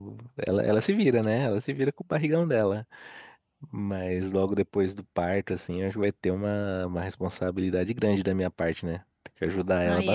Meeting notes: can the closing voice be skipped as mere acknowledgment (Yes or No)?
No